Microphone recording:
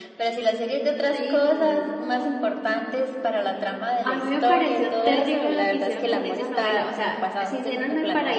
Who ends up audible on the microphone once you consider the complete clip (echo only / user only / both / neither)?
both